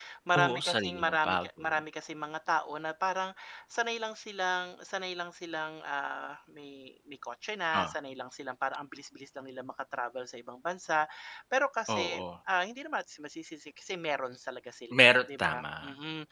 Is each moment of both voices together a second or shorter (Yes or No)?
No